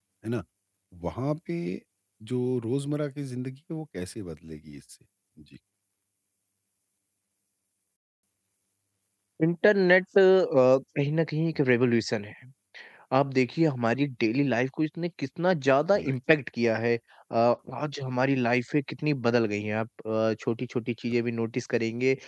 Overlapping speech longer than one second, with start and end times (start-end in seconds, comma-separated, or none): none